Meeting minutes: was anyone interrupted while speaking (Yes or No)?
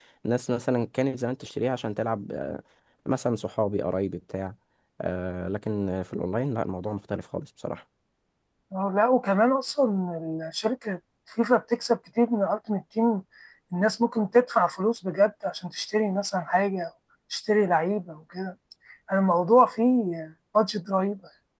No